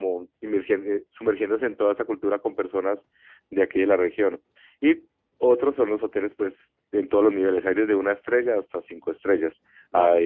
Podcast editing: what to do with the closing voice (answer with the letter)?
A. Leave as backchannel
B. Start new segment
A